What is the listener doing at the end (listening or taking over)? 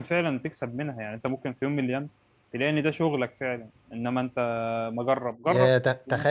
taking over